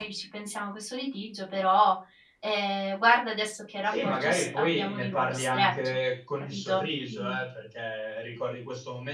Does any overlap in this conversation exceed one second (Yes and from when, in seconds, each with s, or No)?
Yes, from 3.9 s